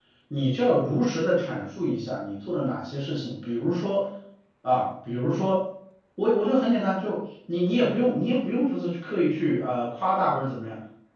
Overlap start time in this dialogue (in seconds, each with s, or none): none